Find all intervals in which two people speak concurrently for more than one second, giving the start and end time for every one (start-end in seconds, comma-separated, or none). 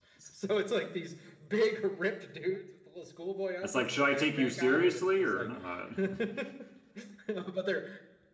3.7-5.6